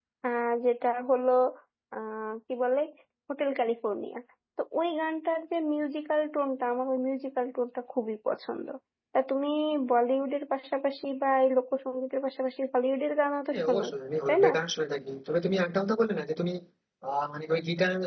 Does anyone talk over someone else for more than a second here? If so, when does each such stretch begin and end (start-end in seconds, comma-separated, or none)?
none